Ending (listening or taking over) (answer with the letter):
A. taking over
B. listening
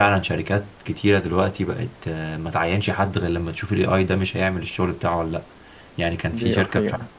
B